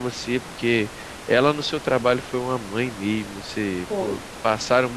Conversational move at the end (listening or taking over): listening